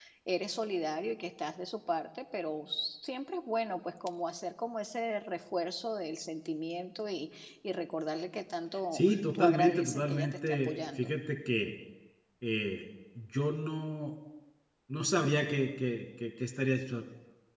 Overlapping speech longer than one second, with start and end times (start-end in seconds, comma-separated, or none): 8.9-11.1